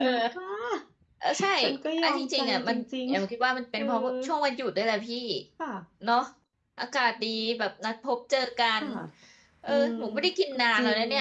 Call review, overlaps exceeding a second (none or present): present